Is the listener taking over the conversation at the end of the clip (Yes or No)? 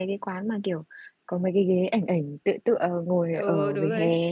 Yes